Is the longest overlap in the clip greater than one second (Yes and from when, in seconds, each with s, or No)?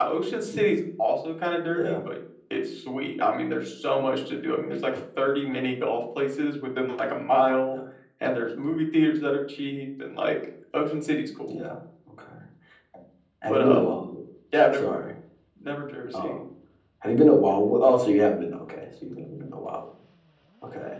No